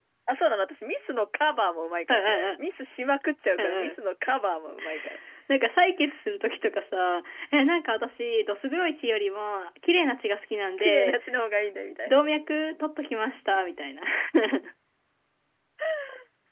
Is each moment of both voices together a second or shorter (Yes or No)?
Yes